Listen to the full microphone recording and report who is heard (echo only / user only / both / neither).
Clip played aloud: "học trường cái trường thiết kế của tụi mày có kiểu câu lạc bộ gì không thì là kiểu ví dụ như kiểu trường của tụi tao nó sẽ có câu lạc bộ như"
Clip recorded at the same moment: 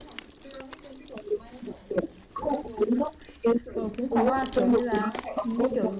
both